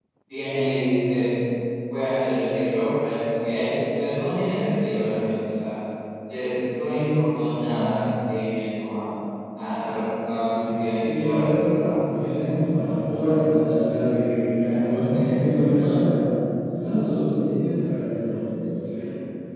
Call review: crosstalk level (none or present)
present